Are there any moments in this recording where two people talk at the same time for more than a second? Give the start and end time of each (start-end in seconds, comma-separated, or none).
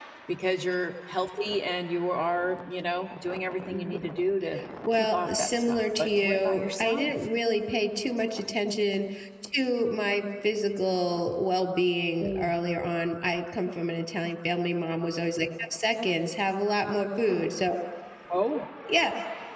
5.0-7.1